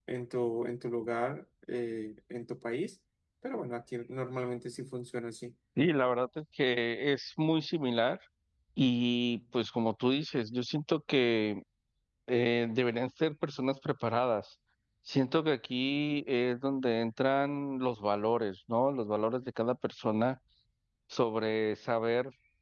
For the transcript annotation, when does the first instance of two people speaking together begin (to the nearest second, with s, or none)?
none